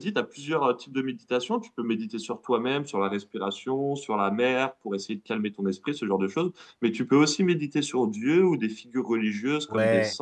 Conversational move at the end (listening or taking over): taking over